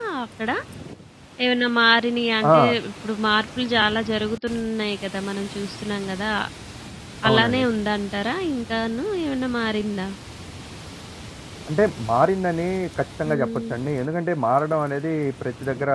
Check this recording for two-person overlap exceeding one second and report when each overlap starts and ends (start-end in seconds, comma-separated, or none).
none